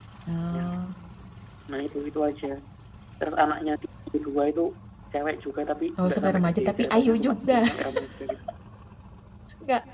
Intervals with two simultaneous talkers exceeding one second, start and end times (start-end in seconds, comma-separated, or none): 6.0-7.7